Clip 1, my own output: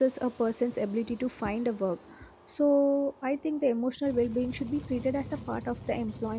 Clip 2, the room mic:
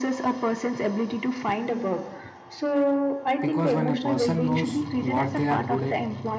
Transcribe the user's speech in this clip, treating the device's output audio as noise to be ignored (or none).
because when a person knows what they are good at